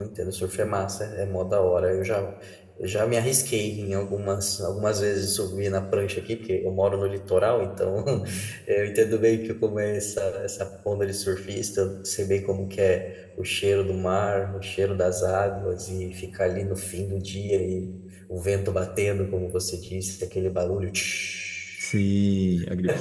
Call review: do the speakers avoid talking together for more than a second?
Yes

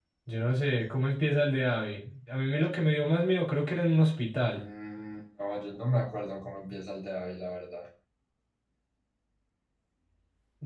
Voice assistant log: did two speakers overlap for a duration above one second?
No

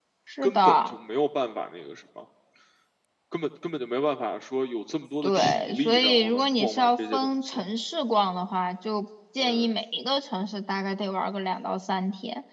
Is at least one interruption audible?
Yes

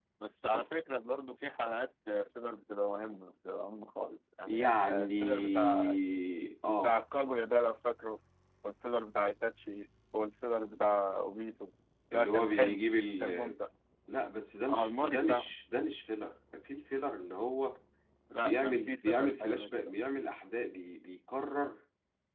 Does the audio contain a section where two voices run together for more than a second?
Yes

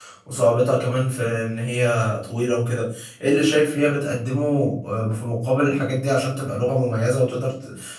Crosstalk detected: No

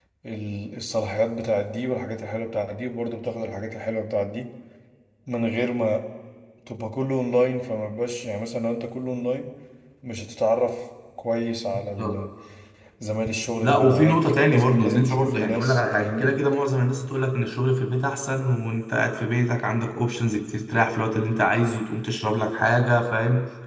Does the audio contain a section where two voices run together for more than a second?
Yes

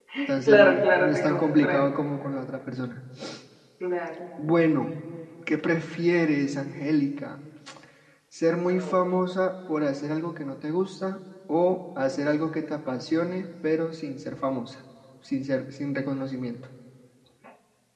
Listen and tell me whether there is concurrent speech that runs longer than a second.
Yes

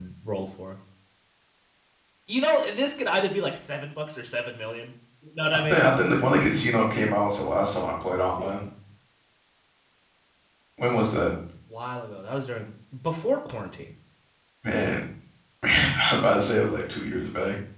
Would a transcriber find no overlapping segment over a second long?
Yes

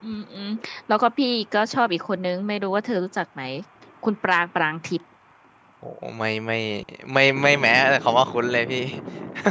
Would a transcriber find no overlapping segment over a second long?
Yes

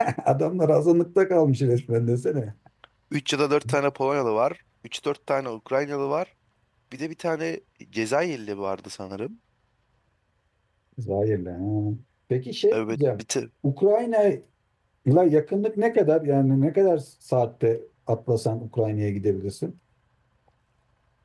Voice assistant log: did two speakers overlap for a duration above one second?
No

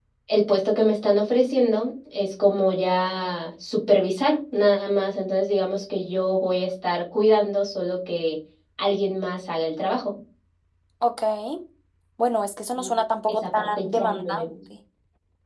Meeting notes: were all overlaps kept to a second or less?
No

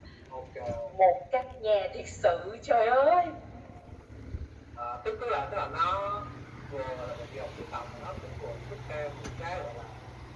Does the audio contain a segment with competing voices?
No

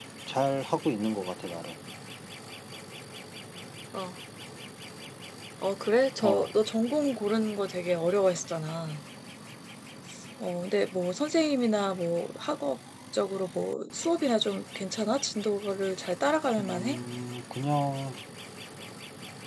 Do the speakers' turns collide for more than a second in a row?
No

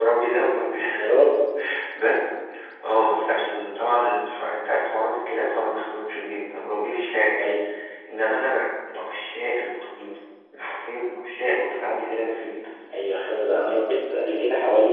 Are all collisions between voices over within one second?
Yes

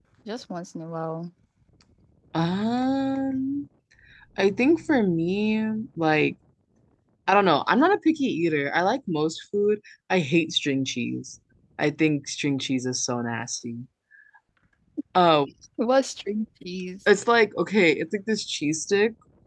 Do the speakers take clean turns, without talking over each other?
Yes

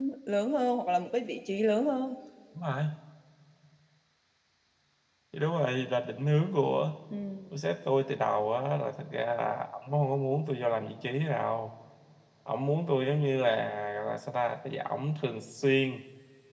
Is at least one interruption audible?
No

